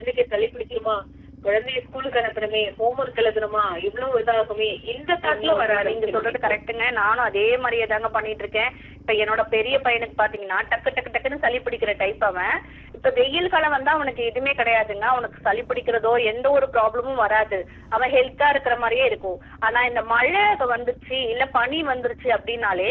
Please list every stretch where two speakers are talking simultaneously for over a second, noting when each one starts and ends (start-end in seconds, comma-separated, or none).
5.3-6.5